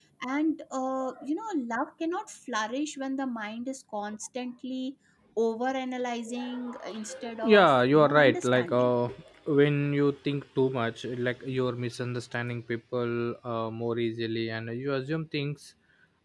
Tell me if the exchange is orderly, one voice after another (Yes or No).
No